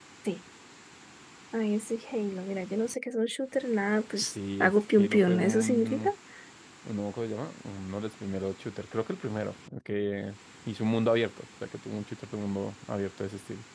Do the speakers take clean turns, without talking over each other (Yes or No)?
No